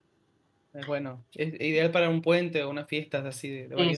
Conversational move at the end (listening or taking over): taking over